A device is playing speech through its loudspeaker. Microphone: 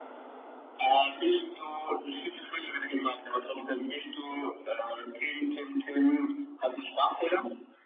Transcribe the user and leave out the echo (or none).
none